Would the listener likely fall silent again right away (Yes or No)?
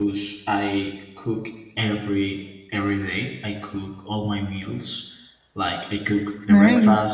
Yes